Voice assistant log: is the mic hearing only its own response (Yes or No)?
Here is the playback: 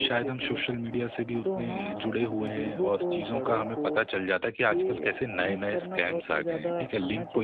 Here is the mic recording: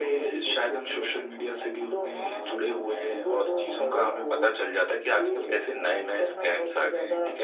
Yes